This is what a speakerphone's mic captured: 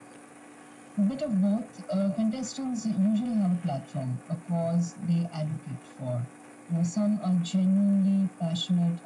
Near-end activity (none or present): none